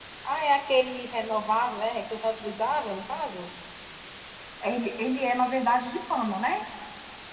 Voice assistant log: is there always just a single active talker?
Yes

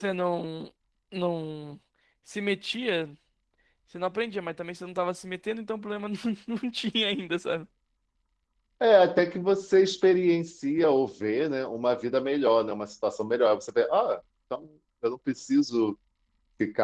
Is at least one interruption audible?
No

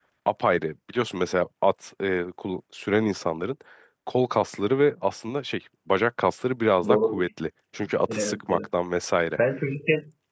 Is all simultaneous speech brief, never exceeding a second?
Yes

